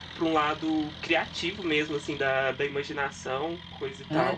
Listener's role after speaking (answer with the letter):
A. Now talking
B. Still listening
A